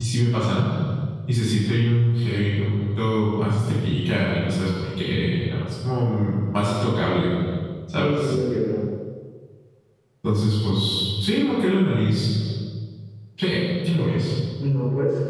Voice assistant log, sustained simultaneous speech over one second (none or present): none